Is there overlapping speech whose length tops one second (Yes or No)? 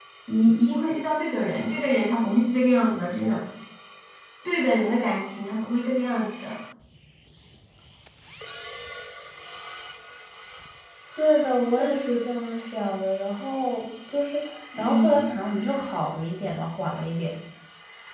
No